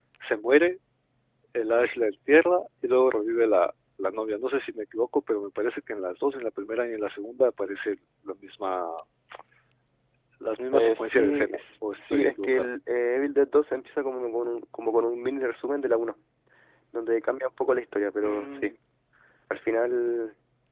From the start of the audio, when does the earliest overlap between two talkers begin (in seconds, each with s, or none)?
10.7 s